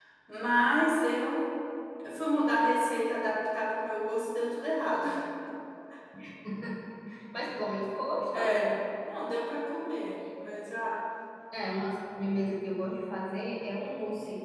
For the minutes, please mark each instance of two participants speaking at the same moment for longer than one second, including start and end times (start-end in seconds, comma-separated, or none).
none